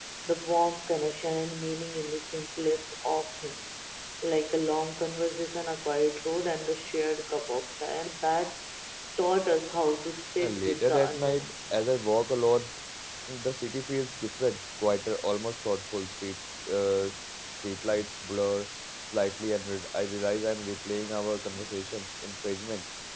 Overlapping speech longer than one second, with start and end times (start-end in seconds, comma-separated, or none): 10.4-11.8